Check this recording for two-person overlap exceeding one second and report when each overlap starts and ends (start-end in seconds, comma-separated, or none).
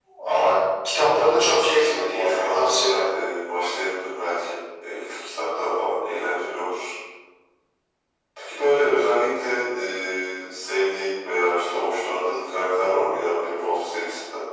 1.1-3.0